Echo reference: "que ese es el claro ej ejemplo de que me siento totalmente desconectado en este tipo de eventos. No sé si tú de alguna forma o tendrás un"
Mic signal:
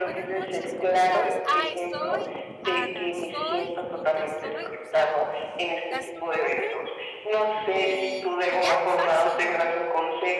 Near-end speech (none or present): present